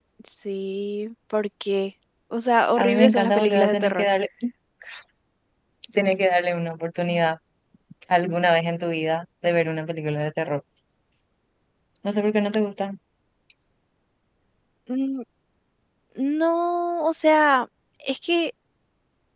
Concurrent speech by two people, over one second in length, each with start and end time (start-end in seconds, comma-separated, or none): 2.8-4.1